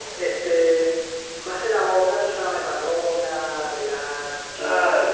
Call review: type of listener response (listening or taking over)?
listening